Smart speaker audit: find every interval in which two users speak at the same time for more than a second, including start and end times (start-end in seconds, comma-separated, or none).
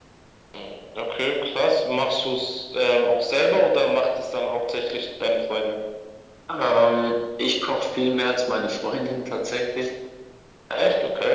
none